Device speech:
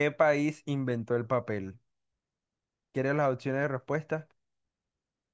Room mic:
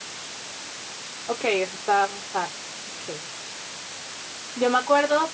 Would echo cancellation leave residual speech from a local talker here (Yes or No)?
Yes